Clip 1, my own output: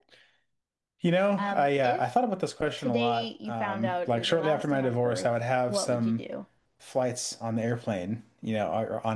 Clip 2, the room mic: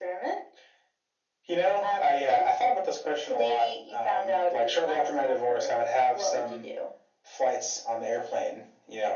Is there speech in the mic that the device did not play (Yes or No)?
No